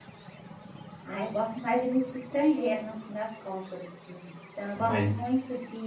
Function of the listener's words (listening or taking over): listening